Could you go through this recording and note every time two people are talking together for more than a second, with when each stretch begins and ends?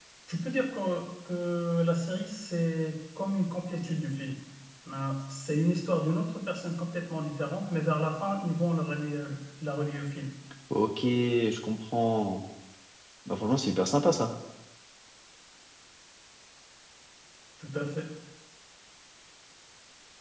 none

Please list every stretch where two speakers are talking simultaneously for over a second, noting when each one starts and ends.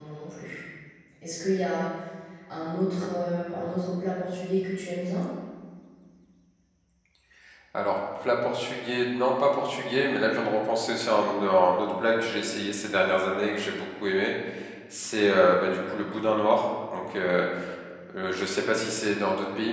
none

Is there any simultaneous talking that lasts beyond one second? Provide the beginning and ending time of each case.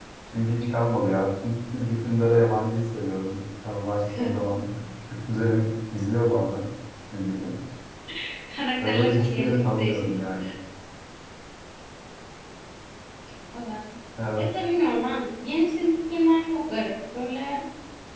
8.8-10.1

